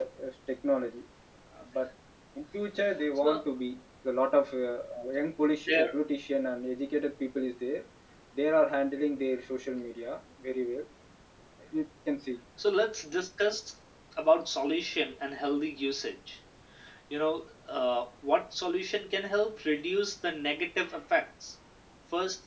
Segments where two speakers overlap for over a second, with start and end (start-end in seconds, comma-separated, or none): none